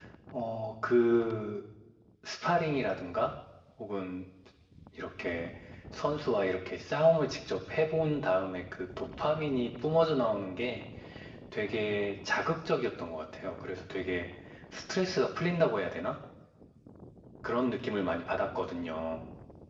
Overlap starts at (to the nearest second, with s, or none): none